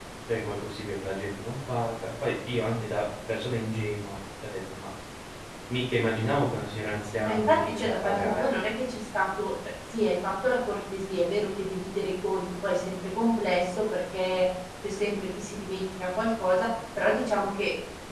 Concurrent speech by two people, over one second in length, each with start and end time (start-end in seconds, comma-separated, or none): 7.2-8.5